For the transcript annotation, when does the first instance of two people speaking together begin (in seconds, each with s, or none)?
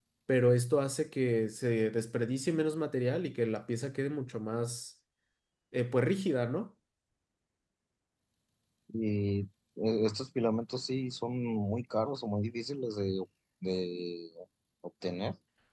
none